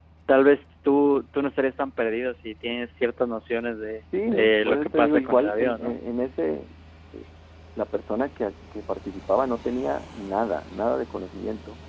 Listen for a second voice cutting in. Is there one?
Yes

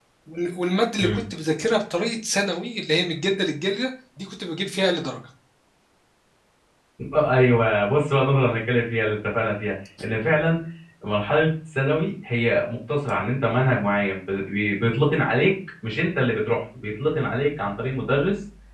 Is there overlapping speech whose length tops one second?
No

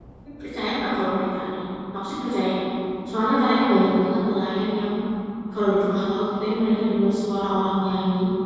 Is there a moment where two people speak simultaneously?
No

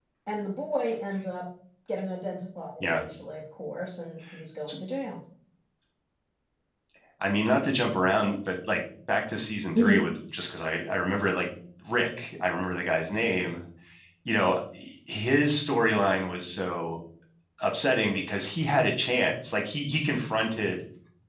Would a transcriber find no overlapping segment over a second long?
Yes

